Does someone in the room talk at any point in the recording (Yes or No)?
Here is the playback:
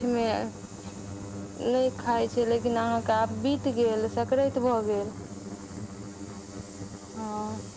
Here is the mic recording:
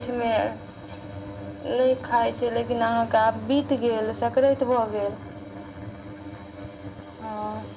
No